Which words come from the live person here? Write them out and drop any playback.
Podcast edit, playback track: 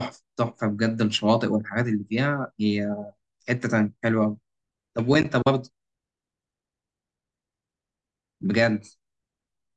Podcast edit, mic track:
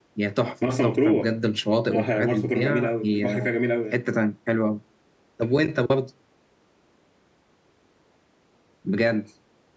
مرسى مطروح آه، مرسى مطروح جميلة قوي البحر فيها جميل قوي يعني

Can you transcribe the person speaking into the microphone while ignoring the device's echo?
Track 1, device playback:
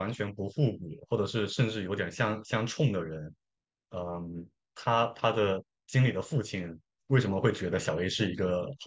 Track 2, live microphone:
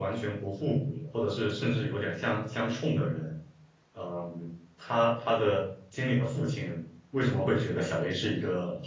none

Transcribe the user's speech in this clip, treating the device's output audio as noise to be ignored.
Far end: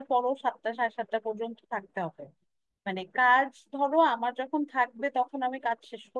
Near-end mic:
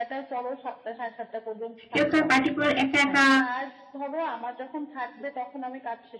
কেউ তো আর পার্টিকুলার একা একা

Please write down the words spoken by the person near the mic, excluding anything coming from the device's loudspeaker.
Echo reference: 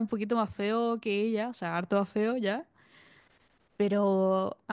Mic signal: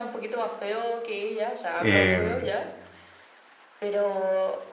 Eh,

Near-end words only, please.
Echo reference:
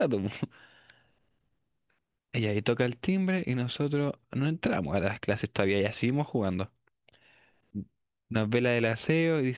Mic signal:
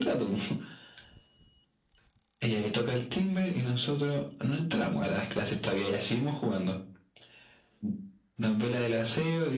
none

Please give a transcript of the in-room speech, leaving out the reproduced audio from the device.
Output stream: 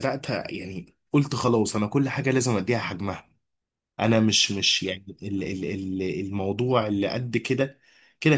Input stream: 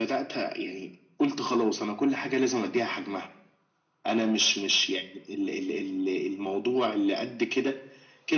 none

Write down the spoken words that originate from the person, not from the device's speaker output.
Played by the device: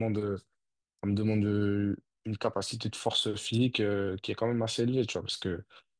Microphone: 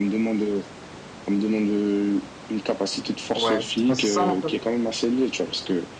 ouais. Ben, C'est ça, en fait.

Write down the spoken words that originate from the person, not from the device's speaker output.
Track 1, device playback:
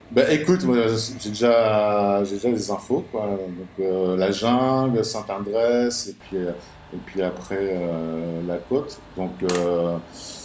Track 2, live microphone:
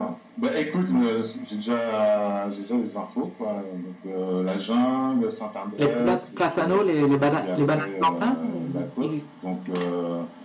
les pla- platanos, les, les, bana- les bananes plantains, euh, ils,

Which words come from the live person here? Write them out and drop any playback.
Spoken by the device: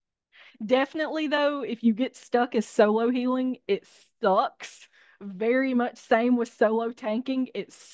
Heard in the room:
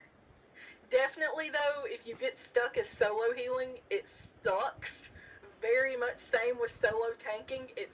none

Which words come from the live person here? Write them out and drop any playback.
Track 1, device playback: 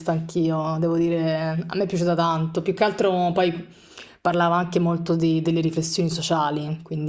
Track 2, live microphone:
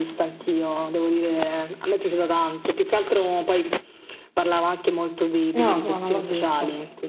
No, no, non l'ho visto.

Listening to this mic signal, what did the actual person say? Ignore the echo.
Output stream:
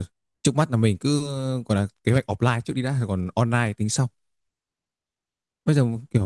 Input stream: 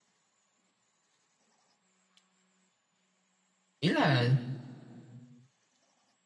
ý là

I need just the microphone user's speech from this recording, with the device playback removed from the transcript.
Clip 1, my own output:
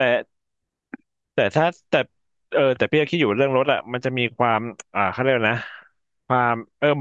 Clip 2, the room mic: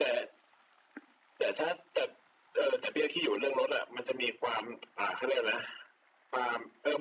none

